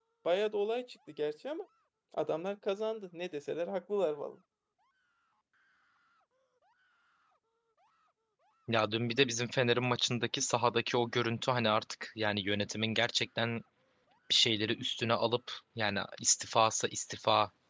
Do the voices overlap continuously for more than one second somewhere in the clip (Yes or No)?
No